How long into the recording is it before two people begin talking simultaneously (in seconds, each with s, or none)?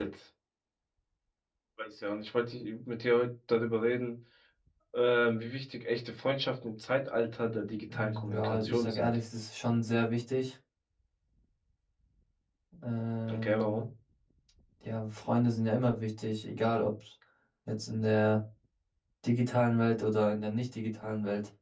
7.9 s